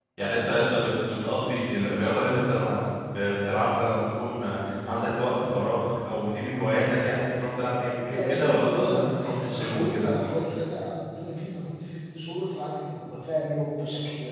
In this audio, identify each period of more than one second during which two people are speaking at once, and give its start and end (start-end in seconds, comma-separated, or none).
8.1-10.1